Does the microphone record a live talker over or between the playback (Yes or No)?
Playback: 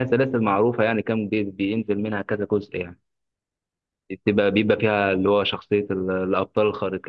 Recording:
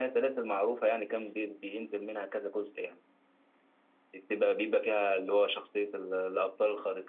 No